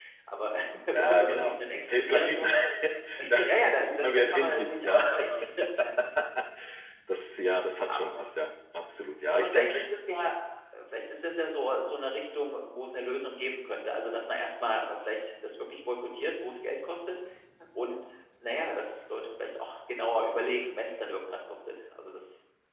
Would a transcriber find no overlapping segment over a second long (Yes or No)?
No